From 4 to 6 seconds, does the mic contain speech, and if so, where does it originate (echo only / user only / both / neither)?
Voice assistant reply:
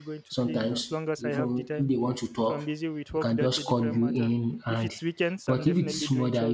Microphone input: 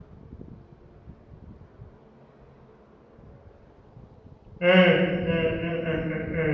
user only